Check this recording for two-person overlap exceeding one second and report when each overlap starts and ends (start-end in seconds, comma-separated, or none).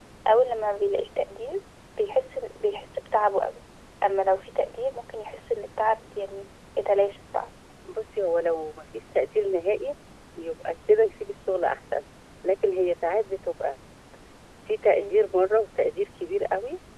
none